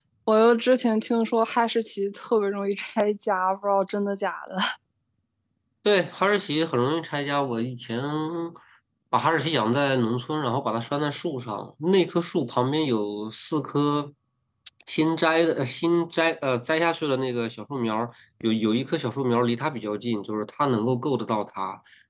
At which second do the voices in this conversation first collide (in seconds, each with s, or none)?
none